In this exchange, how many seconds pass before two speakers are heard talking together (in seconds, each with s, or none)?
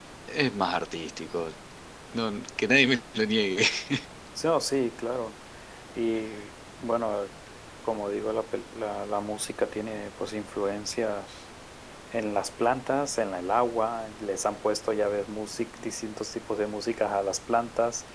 none